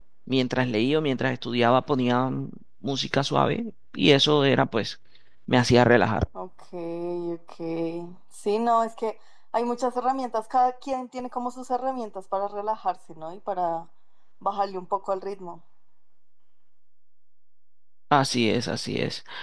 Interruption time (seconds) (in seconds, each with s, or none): none